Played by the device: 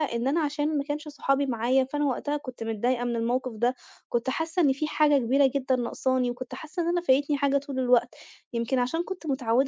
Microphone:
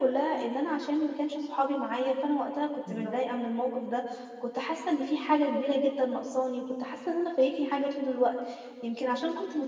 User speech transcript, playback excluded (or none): بالضبط.